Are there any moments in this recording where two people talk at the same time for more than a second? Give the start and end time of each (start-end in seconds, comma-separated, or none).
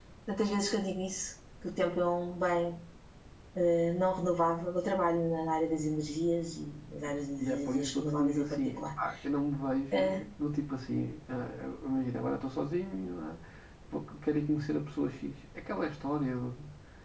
7.4-8.8